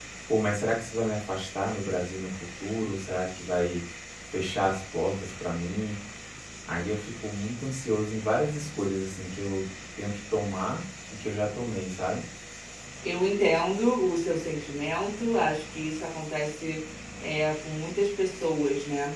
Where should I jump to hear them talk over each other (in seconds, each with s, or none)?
none